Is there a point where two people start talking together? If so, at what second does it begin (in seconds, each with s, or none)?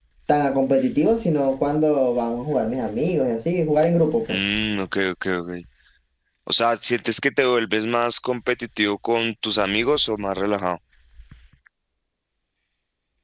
none